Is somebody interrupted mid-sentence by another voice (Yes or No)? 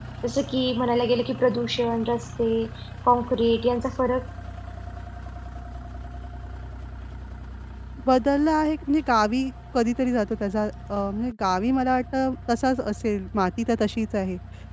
No